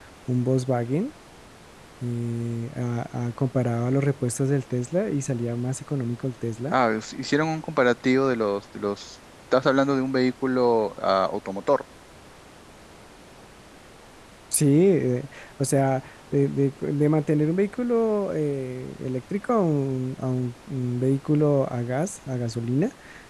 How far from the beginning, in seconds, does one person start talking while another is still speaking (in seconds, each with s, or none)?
none